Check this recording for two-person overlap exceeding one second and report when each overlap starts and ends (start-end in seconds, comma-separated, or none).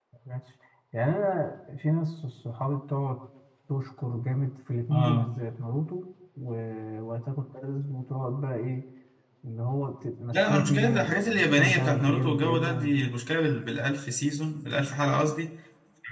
10.3-12.9